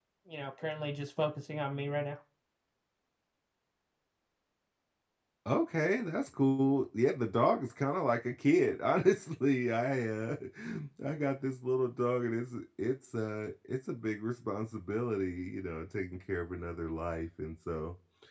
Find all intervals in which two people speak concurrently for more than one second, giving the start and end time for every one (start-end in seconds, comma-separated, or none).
none